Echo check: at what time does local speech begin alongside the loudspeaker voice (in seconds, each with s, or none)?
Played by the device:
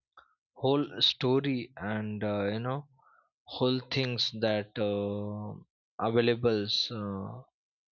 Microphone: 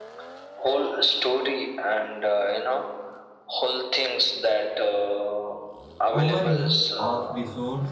6.1 s